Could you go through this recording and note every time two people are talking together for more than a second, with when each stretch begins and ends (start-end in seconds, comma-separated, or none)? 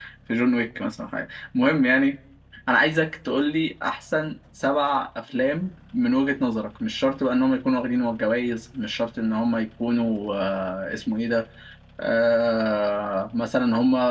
none